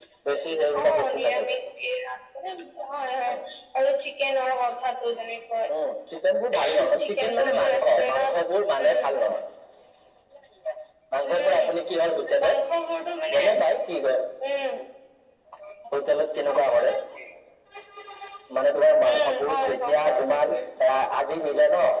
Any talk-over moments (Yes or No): Yes